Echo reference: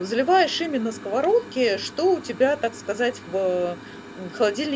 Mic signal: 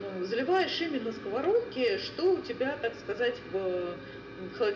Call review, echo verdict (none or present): present